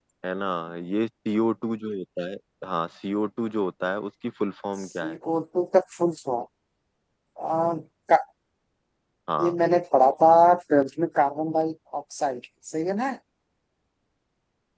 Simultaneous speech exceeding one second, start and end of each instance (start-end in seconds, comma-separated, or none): none